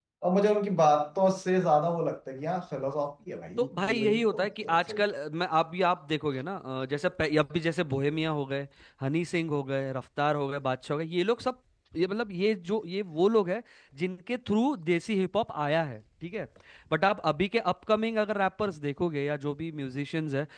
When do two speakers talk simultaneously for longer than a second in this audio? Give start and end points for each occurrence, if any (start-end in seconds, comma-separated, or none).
3.6-5.0